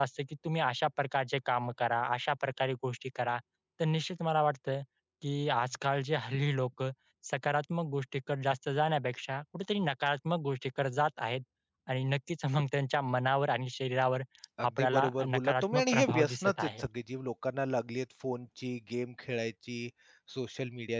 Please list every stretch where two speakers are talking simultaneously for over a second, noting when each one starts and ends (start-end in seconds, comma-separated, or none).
14.8-16.9